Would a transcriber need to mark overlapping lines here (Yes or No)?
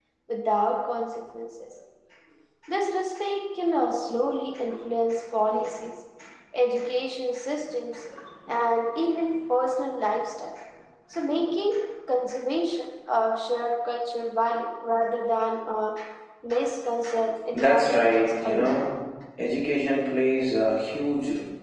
Yes